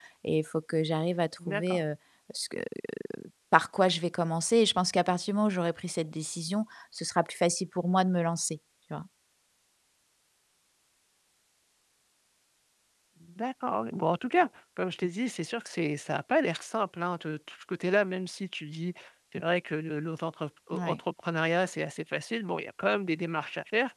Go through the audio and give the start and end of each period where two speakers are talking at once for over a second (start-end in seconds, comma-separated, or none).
none